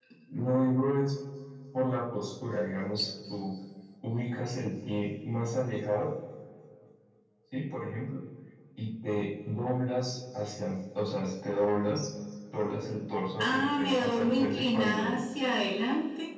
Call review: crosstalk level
present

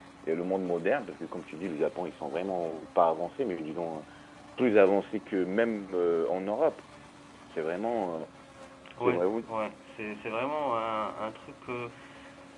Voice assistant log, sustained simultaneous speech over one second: none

